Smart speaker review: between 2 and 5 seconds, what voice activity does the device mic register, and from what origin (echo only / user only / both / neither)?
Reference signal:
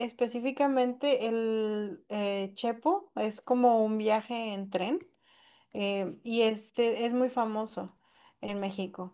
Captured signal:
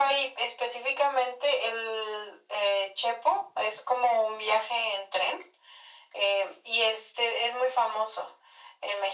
echo only